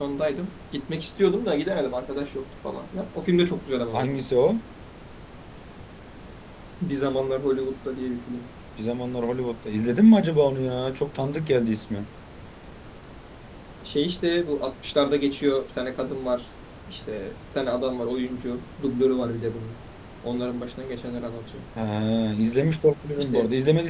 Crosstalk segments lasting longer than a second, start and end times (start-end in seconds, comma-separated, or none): none